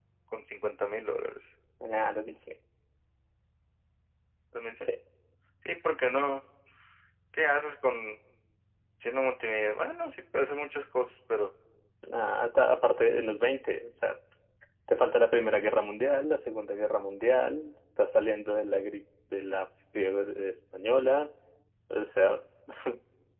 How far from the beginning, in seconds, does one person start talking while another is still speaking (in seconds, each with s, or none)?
none